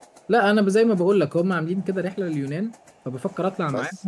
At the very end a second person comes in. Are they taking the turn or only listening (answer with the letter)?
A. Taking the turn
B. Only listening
B